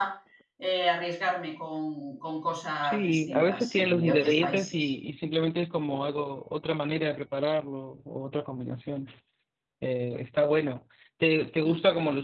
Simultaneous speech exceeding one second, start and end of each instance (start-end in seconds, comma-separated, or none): 2.8-4.9